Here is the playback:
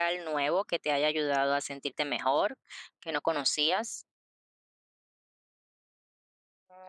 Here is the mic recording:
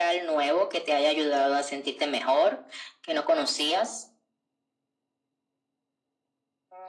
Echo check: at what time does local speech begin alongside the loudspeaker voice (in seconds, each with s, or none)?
none